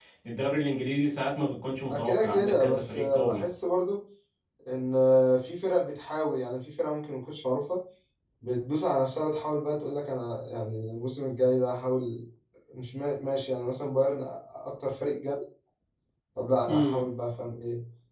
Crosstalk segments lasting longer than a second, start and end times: 1.9-3.5

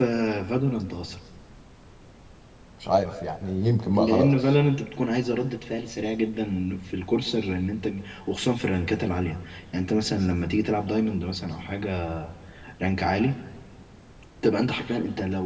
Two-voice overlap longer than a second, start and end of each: none

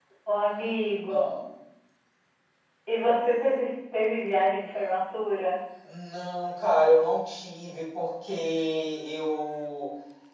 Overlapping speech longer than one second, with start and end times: none

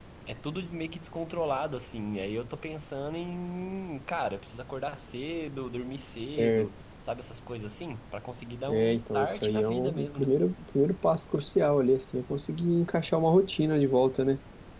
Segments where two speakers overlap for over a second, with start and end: 8.7-10.3

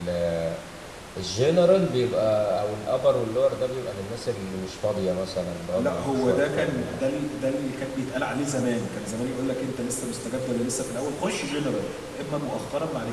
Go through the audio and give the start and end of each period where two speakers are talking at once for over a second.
5.7-7.0

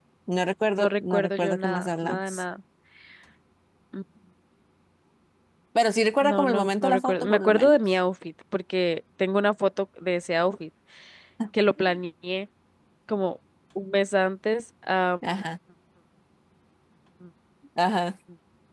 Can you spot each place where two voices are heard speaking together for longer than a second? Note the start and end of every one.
0.8-2.4, 6.2-7.8

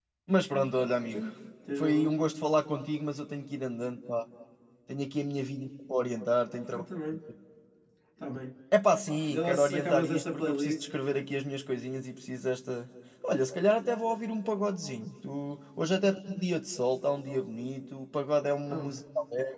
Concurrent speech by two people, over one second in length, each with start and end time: 9.3-10.7

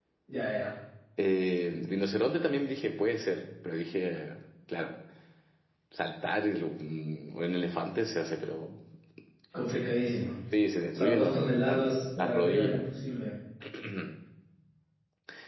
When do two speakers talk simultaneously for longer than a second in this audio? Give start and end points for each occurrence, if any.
10.9-12.8

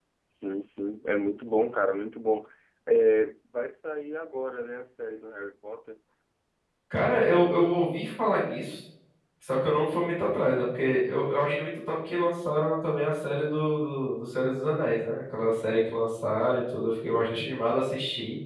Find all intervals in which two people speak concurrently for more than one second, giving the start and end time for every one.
none

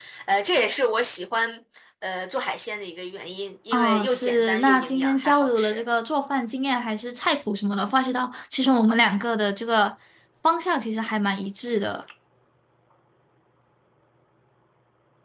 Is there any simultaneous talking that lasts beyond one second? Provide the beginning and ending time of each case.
3.7-5.8

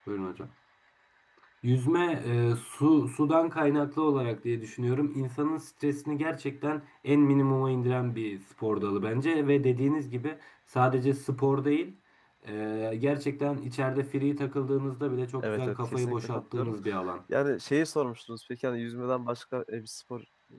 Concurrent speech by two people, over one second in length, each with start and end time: 15.4-16.7

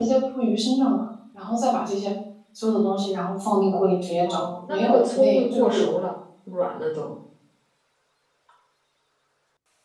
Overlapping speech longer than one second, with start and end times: 4.2-5.9

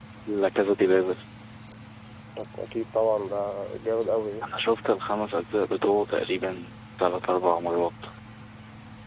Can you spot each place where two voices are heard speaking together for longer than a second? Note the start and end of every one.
none

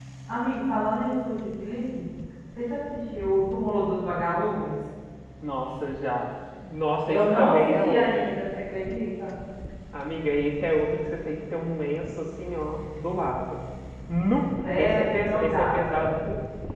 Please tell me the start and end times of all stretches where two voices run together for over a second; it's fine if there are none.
7.1-8.3, 14.7-16.0

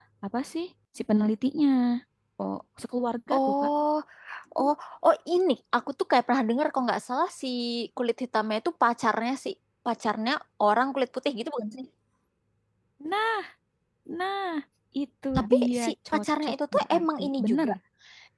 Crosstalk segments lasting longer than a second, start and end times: 15.4-17.7

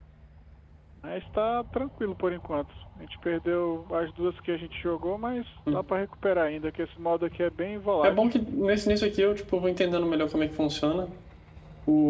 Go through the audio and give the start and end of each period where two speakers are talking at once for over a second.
none

